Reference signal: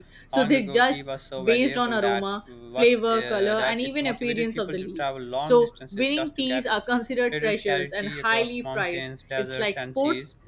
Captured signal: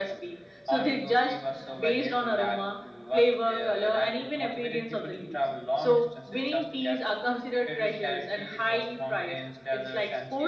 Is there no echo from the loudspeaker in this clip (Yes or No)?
No